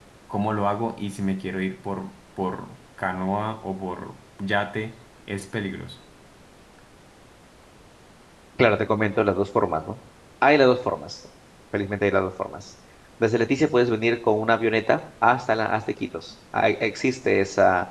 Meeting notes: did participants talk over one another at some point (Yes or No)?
No